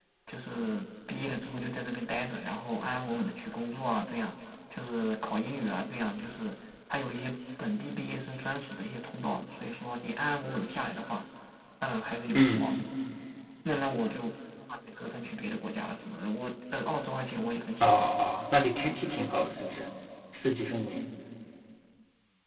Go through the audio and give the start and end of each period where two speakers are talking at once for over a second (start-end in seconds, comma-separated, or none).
none